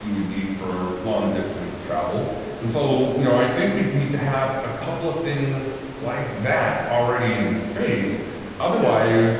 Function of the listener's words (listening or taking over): listening